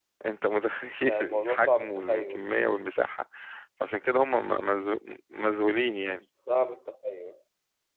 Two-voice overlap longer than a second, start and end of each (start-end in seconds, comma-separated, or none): 1.1-2.4